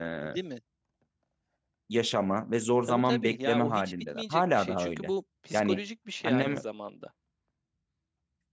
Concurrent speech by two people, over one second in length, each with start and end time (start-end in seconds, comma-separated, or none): 2.8-5.1